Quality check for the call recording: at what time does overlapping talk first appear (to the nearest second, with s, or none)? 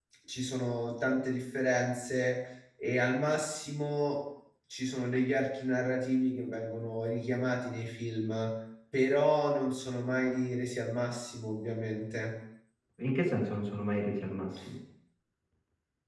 none